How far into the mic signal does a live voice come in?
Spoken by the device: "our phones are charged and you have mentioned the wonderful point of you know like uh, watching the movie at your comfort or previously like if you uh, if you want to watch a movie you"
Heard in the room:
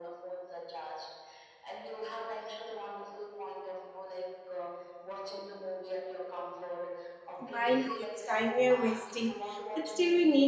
7.4 s

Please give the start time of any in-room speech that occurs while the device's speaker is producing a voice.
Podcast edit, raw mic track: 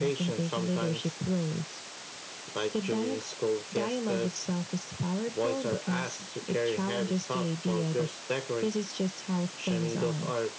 none

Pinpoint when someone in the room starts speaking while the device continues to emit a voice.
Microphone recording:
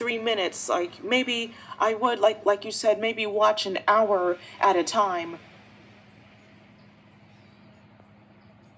none

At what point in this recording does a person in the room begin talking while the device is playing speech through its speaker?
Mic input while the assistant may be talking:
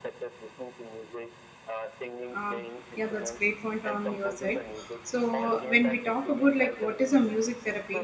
2.3 s

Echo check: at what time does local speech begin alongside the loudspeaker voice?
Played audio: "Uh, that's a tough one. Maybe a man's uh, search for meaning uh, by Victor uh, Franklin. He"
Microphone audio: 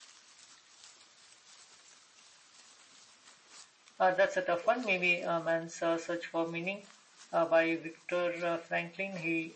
none

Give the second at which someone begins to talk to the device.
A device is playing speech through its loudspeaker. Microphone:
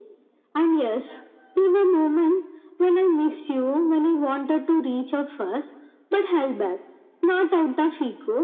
none

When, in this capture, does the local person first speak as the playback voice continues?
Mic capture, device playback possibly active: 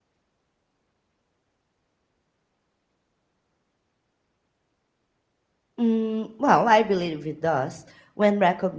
5.8 s

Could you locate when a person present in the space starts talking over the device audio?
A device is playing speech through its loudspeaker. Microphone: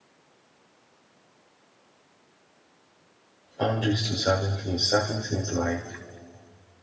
3.6 s

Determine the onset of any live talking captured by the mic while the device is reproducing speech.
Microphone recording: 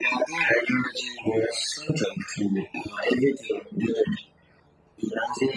none

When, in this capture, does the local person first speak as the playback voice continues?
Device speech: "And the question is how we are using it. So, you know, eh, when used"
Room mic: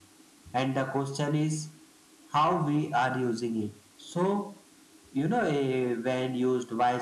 none

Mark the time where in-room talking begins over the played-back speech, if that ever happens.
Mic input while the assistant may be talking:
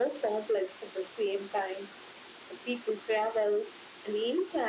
none

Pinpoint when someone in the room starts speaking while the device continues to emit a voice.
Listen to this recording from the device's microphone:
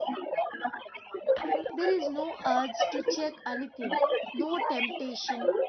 1.7 s

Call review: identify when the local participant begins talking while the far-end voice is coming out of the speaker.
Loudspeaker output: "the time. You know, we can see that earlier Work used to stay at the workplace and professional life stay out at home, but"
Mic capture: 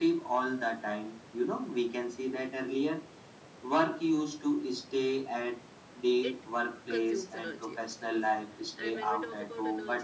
6.2 s

